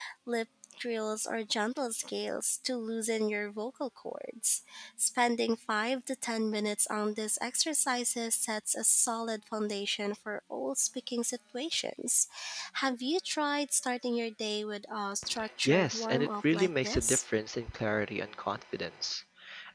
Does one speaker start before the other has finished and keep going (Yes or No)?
Yes